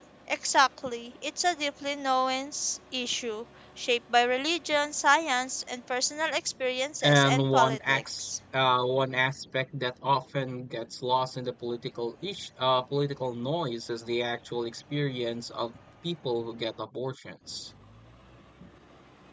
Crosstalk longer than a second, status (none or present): present